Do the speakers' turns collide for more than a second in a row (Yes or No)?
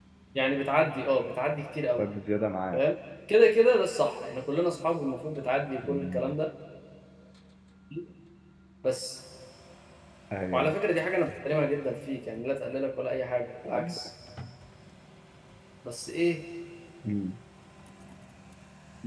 No